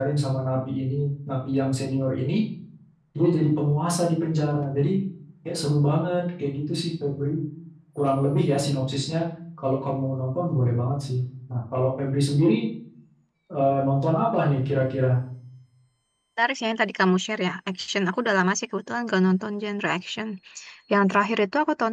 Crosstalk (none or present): none